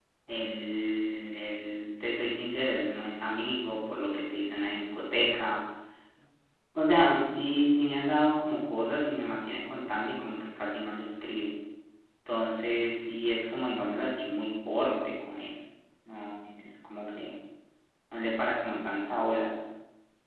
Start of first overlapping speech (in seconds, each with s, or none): none